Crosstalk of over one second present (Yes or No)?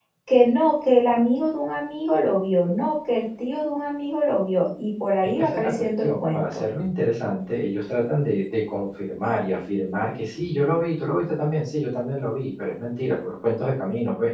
Yes